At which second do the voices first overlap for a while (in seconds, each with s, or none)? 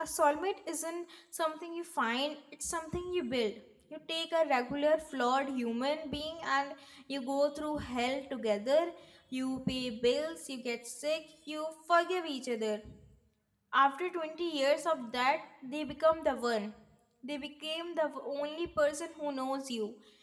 none